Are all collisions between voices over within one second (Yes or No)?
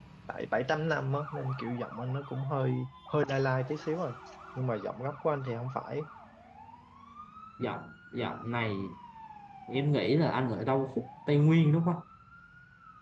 Yes